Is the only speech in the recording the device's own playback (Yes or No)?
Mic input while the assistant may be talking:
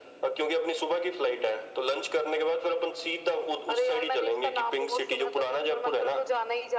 Yes